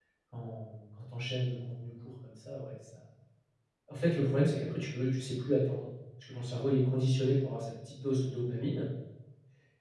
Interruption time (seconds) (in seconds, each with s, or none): none